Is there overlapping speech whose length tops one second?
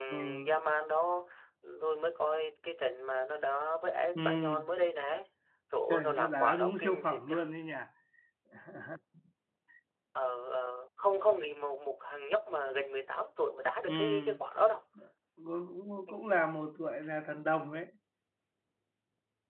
Yes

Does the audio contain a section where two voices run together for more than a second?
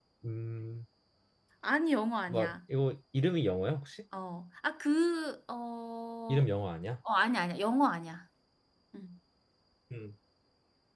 No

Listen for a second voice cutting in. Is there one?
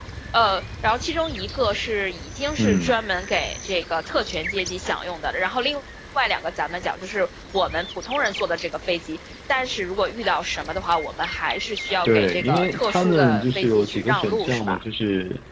Yes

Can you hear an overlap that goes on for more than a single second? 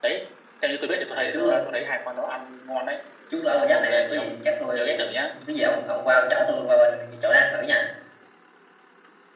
Yes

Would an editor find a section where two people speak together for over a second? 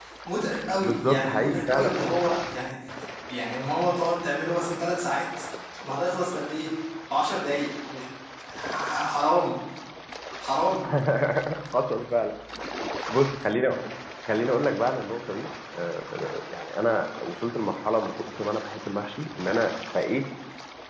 Yes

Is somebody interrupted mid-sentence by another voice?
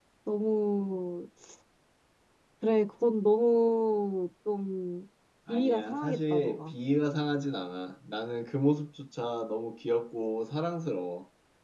Yes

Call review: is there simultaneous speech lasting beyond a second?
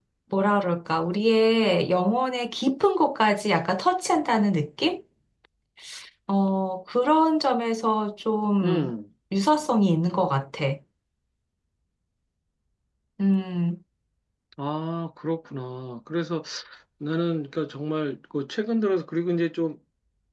No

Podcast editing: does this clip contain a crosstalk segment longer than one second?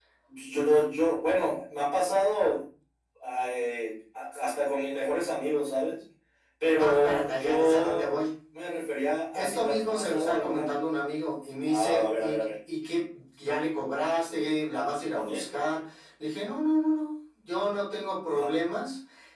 Yes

